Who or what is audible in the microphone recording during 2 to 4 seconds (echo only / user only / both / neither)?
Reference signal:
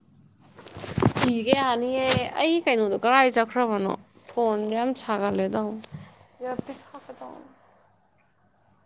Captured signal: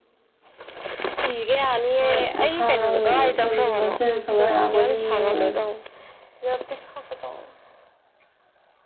both